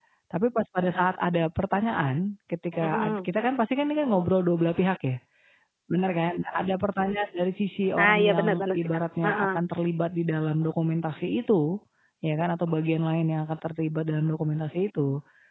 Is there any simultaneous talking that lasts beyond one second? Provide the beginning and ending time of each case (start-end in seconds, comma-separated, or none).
8.0-9.6